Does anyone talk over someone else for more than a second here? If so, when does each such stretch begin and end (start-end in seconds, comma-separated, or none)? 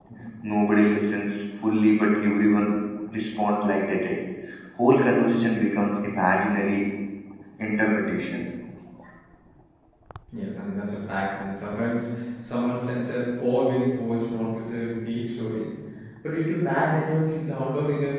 none